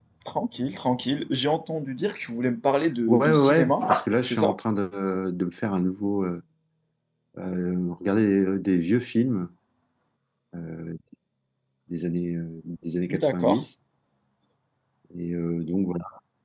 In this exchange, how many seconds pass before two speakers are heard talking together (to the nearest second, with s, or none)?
3 s